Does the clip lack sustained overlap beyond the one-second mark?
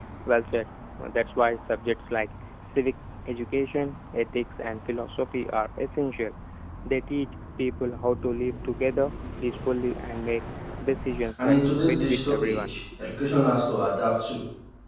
No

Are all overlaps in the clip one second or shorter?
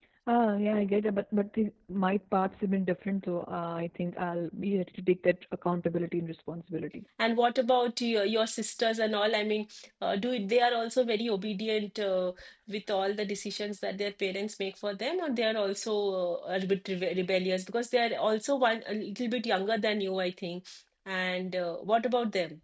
Yes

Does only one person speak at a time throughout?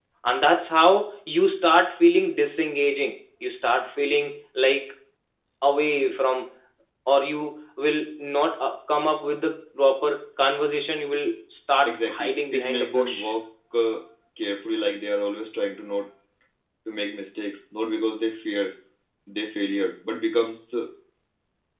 No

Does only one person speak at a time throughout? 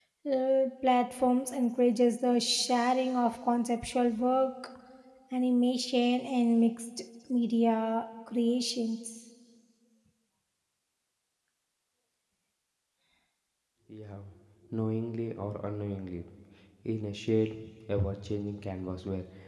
Yes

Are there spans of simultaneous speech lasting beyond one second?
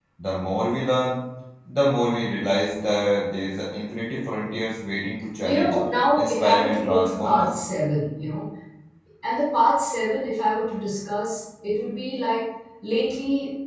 Yes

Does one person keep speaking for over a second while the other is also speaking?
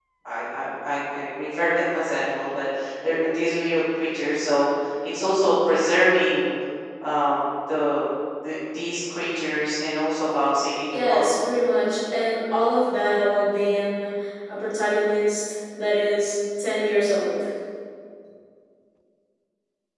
No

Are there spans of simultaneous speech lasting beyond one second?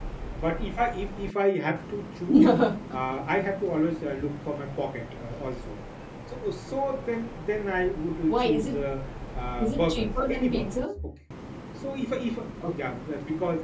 Yes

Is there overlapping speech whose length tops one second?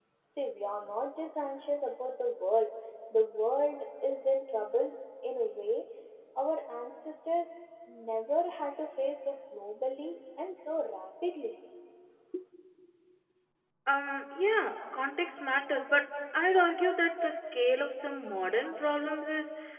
No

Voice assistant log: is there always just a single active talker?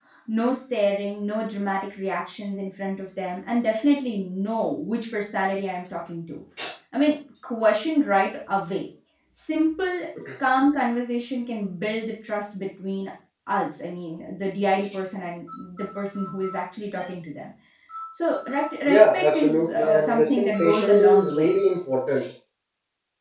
No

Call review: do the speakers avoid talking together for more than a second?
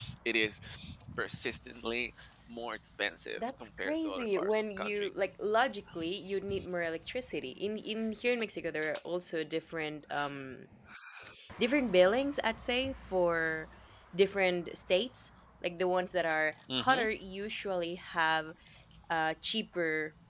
No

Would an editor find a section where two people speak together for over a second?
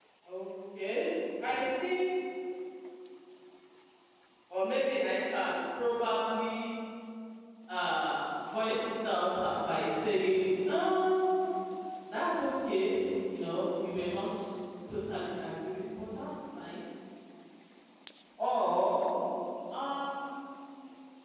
No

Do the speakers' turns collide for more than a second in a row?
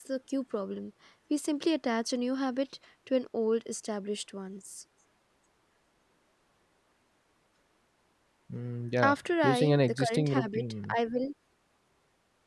Yes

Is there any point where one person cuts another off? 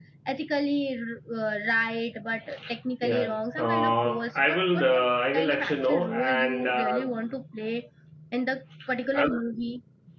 Yes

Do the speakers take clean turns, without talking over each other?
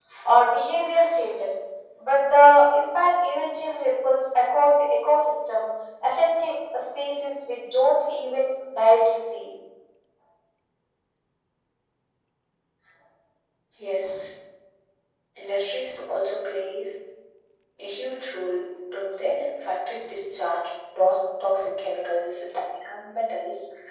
Yes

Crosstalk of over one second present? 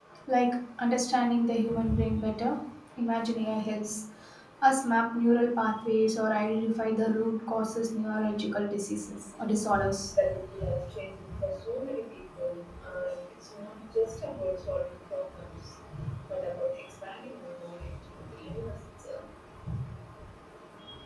No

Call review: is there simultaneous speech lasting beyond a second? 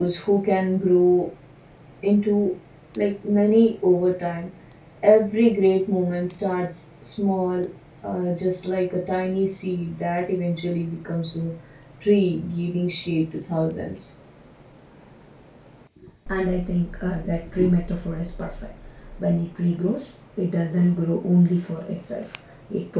No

